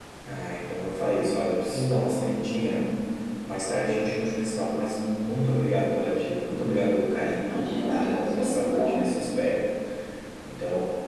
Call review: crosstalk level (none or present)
present